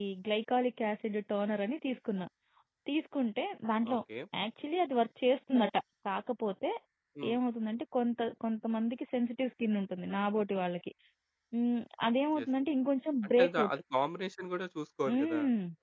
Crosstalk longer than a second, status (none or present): none